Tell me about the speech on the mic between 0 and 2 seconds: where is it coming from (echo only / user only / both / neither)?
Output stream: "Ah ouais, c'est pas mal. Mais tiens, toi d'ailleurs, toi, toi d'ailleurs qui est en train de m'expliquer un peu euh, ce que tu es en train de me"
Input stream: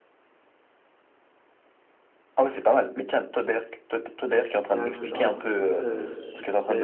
neither